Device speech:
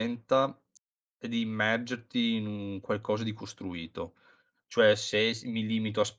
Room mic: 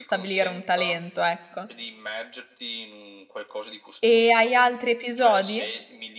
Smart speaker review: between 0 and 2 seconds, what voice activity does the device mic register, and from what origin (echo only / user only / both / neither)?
both